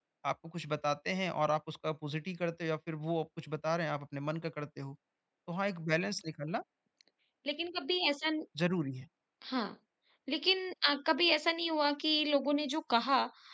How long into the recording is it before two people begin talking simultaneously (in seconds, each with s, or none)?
none